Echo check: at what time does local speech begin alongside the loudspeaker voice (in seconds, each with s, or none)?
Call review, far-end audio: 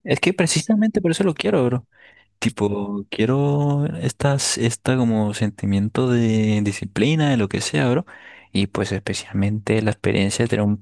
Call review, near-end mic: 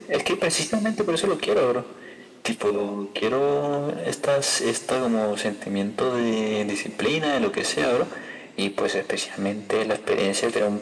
none